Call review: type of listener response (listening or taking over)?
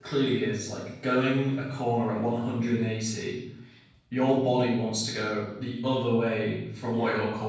listening